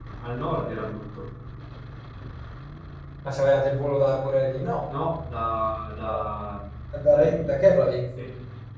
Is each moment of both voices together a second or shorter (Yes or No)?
Yes